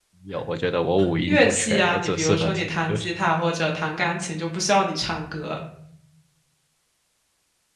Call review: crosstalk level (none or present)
present